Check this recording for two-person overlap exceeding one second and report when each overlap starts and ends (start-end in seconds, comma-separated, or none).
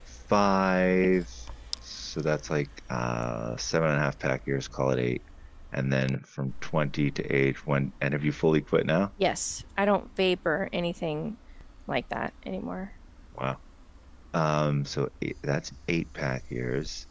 none